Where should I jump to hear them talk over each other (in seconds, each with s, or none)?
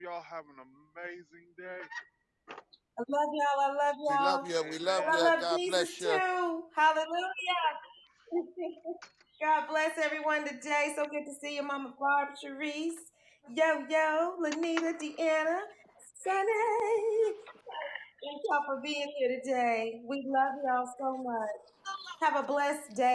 4.1 s